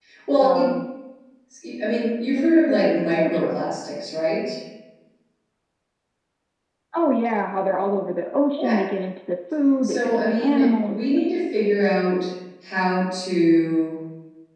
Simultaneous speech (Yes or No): Yes